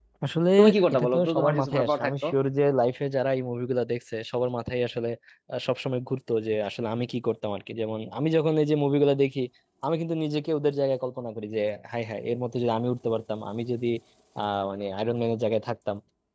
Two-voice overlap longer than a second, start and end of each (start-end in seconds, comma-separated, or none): 0.9-2.2